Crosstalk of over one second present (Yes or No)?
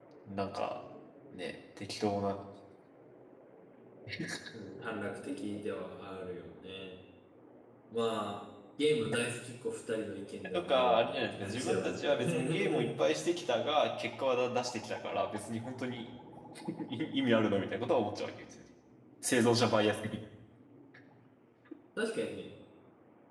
Yes